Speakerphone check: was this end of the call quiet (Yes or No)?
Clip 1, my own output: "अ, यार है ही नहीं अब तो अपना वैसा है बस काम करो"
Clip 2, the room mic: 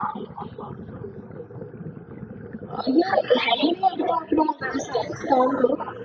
Yes